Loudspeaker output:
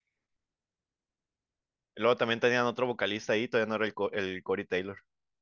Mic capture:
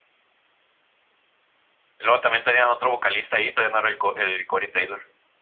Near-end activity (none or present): none